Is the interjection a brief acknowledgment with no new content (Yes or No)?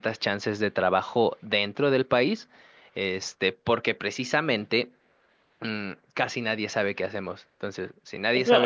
No